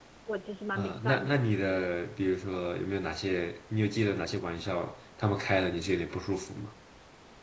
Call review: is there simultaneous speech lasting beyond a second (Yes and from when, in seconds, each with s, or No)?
Yes, from 0.8 s